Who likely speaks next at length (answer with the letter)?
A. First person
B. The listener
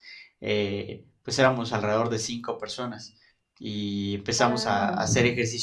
A